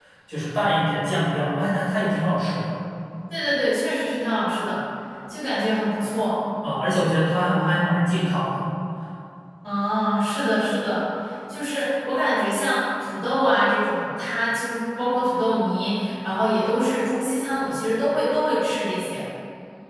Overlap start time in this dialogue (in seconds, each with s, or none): none